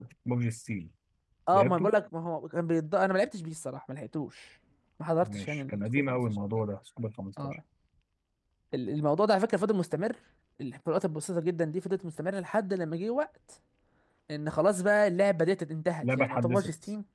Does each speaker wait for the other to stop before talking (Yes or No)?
No